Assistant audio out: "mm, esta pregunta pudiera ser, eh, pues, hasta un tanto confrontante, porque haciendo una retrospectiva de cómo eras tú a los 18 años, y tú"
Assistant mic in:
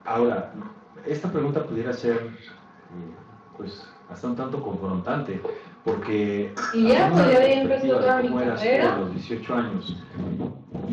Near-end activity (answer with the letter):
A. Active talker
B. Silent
A